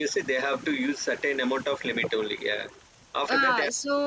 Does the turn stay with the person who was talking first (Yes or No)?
No